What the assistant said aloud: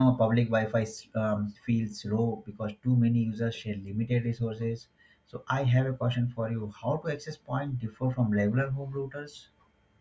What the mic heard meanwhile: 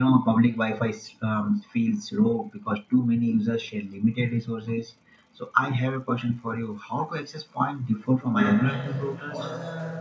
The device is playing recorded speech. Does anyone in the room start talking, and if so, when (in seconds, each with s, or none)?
8.2 s